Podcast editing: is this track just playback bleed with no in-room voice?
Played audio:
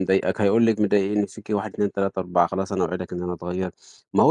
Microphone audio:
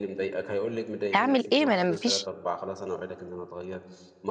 No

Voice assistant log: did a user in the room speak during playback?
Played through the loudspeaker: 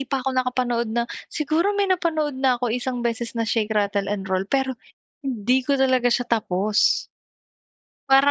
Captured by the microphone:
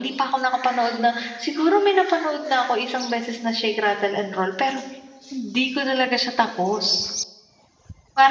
No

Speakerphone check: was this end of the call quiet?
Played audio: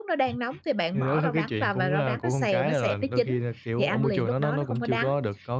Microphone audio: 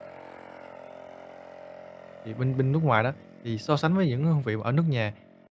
No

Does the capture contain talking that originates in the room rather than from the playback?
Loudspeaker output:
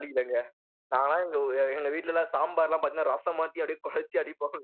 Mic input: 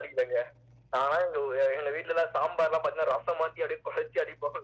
No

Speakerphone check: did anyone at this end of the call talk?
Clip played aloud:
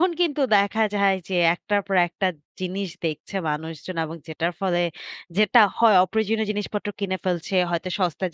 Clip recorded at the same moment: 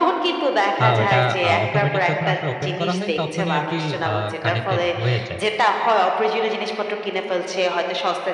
Yes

